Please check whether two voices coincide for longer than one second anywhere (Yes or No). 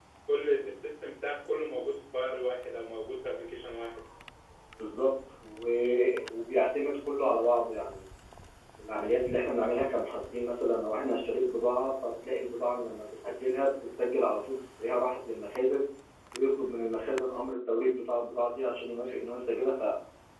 No